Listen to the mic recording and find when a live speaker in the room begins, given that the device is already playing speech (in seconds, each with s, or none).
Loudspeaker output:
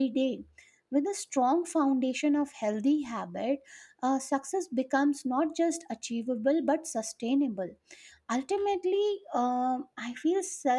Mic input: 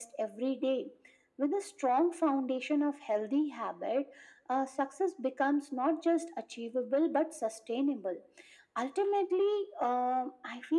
none